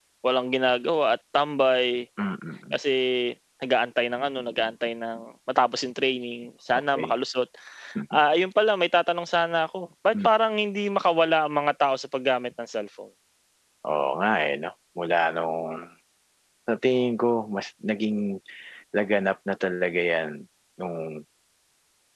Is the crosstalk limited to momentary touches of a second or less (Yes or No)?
Yes